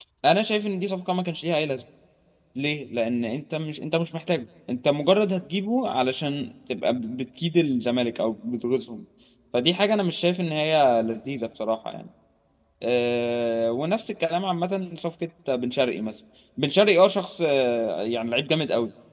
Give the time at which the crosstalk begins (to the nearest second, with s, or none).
none